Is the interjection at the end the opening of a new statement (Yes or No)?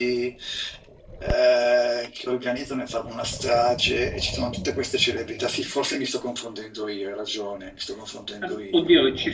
Yes